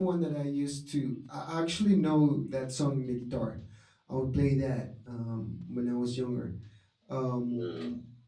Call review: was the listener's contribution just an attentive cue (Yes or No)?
Yes